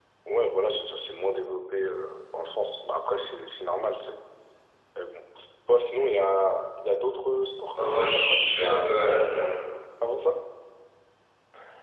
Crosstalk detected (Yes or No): Yes